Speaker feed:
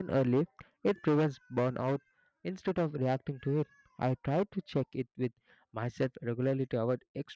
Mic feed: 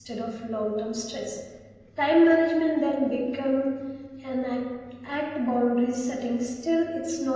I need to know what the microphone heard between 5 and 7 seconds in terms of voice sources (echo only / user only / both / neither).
user only